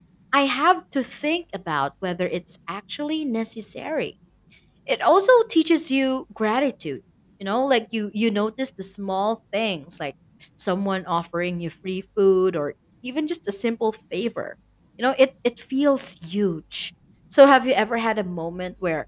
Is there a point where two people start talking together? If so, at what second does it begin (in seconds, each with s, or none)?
none